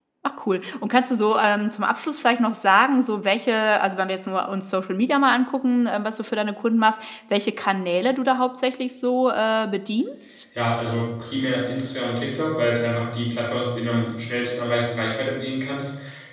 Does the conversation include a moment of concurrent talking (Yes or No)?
No